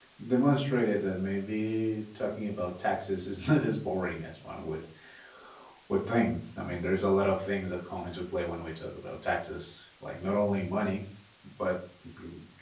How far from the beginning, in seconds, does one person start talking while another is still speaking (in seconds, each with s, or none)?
none